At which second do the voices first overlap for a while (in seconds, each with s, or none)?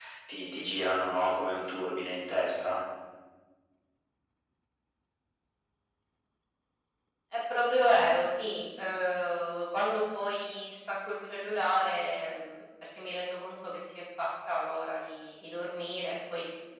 none